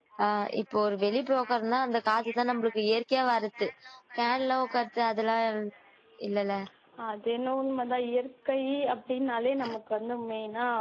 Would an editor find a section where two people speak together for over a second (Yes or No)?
No